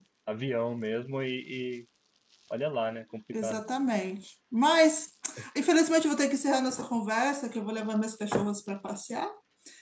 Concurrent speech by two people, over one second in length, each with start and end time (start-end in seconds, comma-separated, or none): none